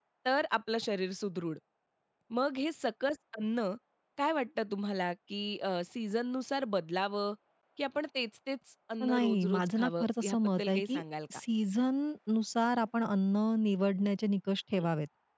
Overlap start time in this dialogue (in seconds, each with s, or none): 9.0 s